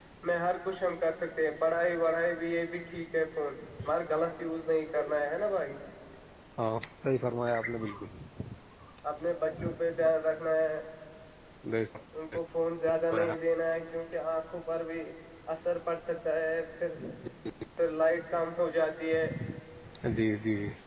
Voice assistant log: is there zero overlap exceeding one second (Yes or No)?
Yes